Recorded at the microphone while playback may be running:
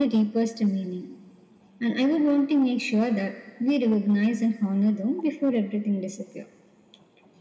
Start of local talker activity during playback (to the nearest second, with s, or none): none